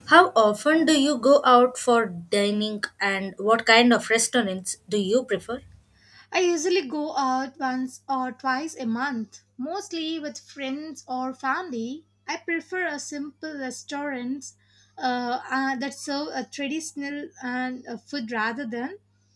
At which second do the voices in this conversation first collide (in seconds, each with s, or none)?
none